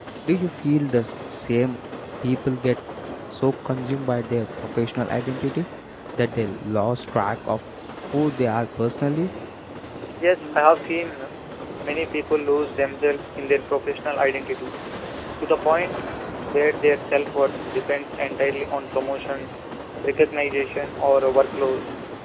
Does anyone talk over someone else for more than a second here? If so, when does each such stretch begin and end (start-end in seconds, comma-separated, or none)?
none